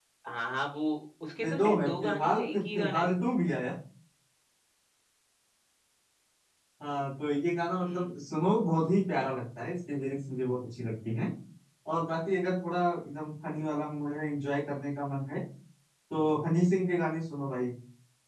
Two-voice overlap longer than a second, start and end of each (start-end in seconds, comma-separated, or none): 1.4-3.1